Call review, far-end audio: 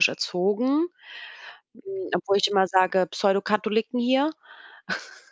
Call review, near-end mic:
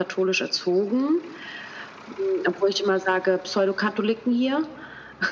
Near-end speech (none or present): none